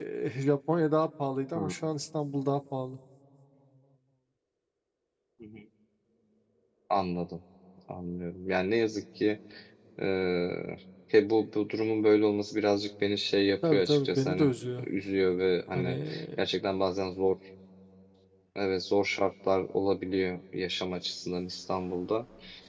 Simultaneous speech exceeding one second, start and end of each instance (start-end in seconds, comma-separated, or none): 13.7-14.9